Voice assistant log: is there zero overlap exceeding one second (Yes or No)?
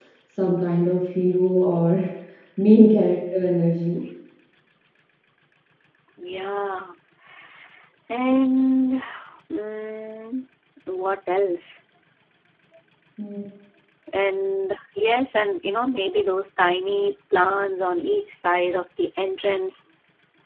Yes